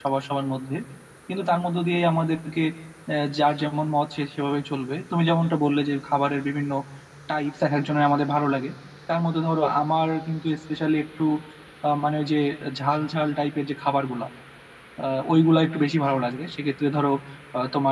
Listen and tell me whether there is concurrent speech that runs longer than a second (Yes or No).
No